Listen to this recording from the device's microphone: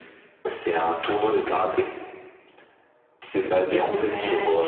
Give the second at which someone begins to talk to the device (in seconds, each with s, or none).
3.4 s